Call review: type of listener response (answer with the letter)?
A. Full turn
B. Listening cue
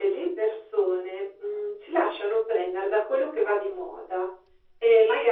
B